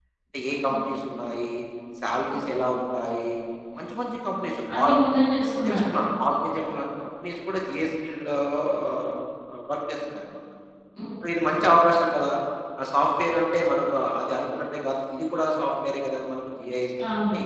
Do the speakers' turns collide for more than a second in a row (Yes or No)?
No